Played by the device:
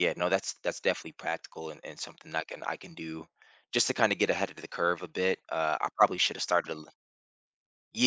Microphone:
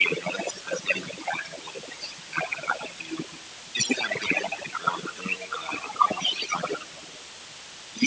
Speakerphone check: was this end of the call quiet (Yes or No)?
Yes